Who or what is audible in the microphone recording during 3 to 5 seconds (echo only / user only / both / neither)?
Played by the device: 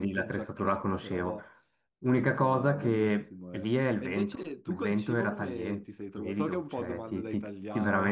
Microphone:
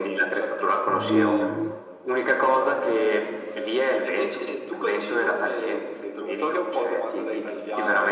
echo only